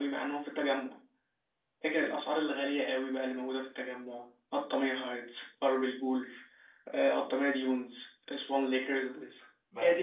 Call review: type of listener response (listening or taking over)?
taking over